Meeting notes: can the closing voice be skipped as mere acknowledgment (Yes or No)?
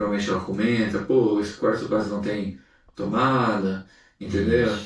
Yes